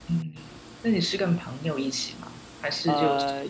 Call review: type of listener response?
taking over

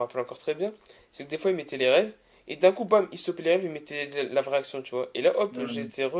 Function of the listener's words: listening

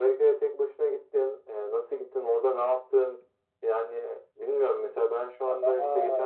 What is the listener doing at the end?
taking over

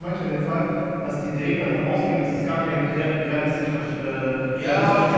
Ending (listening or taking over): taking over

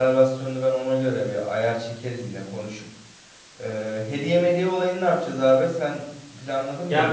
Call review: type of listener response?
taking over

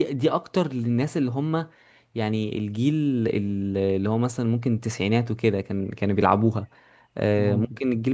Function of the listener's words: listening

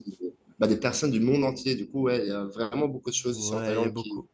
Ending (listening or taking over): taking over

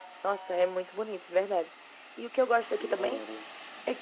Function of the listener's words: listening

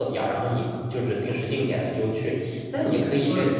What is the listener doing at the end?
listening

